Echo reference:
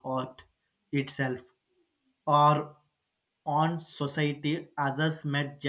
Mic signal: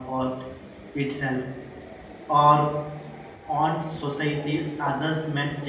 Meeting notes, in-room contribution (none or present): none